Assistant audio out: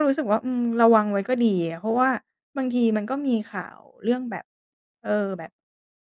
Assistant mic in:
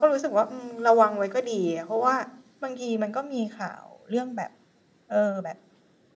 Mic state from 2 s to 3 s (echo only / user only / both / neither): echo only